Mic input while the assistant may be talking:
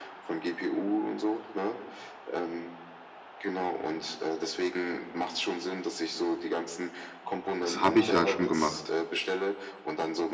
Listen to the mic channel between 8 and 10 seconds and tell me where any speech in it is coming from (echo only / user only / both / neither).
both